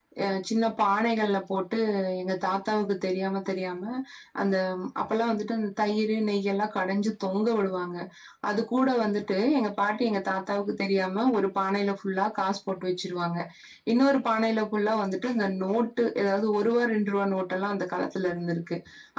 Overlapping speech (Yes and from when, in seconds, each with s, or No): No